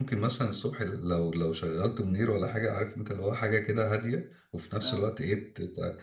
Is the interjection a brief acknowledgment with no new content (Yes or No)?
Yes